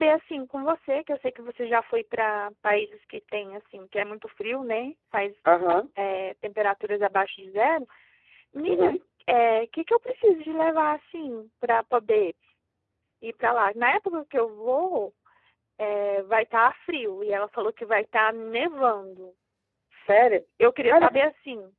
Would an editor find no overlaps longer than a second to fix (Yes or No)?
Yes